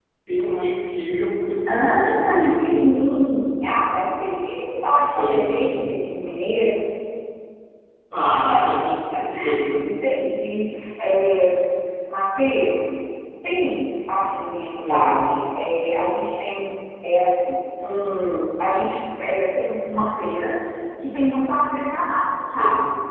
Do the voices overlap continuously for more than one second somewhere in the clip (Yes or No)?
Yes